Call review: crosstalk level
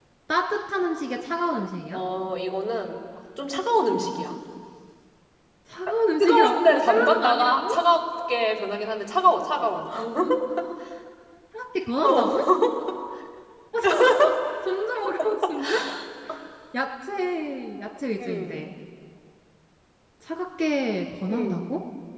present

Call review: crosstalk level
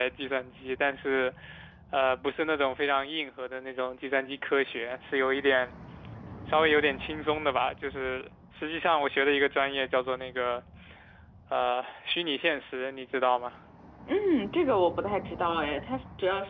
none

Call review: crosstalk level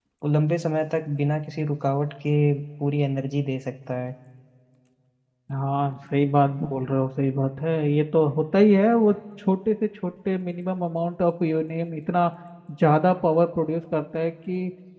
none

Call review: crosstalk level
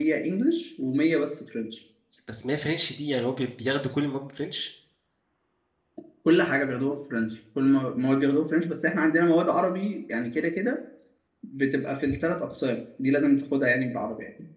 none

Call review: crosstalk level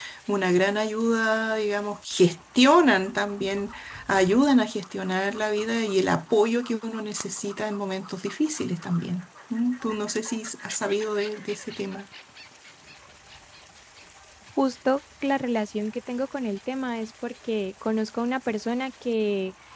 none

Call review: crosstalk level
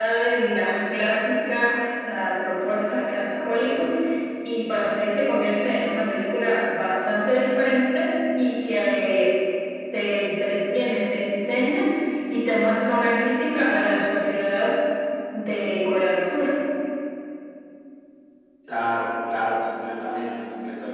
none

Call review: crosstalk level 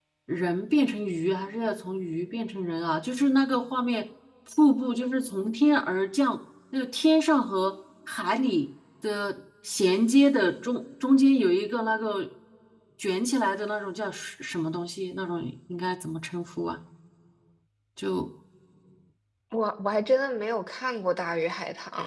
none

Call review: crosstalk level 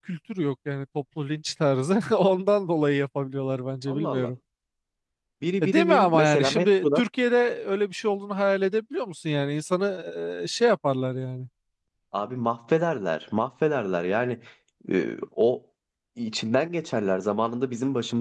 present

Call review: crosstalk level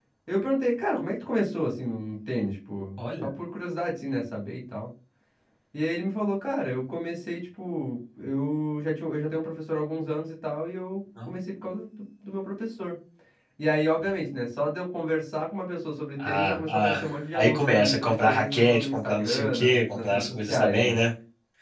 present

